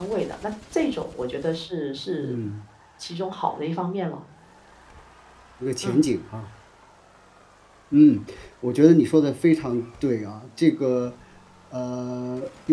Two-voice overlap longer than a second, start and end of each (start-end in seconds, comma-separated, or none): none